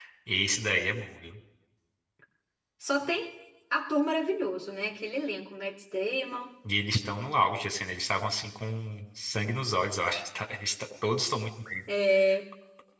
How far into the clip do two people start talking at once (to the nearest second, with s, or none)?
none